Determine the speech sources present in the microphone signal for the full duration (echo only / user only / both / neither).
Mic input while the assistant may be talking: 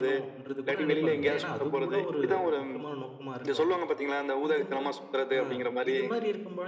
both